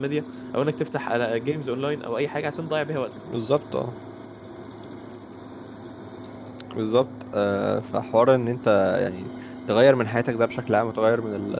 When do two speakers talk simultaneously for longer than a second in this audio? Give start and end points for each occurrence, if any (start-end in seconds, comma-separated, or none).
none